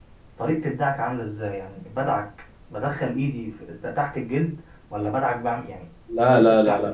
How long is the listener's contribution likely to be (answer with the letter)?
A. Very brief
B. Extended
B